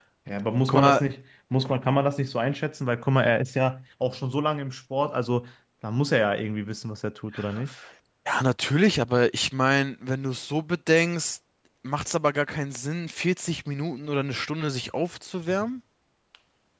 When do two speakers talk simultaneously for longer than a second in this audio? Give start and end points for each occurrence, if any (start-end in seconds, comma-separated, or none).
none